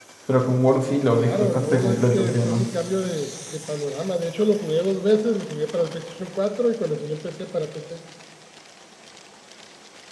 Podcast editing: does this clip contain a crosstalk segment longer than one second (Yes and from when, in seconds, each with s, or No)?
Yes, from 0.8 s